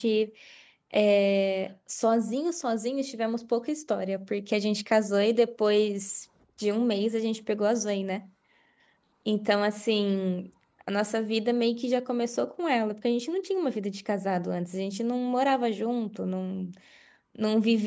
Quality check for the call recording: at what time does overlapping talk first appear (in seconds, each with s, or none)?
none